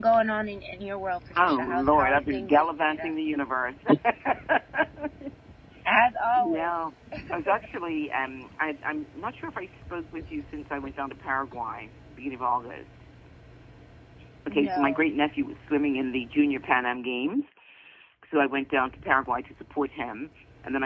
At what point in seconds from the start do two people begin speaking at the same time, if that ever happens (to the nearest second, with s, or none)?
1 s